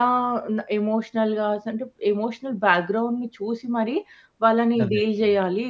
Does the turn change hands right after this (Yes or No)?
No